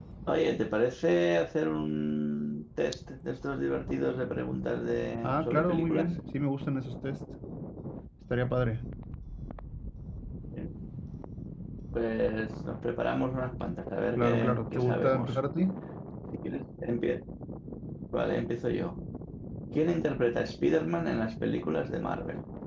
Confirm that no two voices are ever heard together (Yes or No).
No